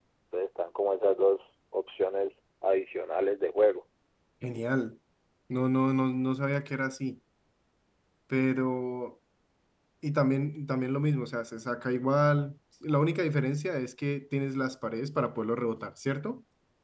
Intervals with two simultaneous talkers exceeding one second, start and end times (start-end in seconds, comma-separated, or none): none